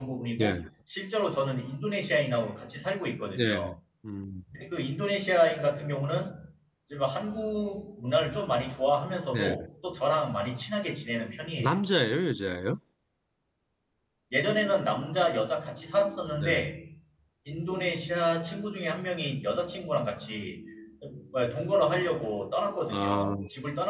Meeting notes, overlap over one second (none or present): none